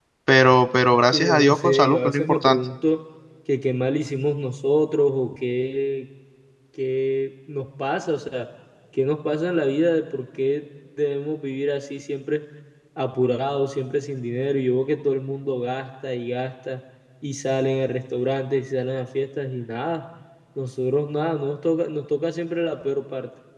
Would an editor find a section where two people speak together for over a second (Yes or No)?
Yes